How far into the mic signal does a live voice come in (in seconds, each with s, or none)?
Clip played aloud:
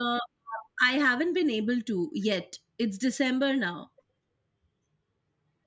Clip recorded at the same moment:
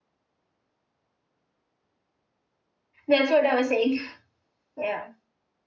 3.1 s